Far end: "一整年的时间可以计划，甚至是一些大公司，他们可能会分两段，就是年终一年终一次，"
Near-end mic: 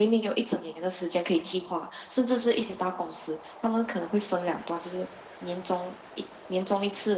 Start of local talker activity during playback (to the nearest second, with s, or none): none